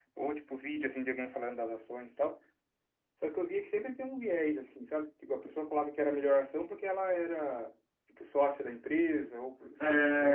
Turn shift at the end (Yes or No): Yes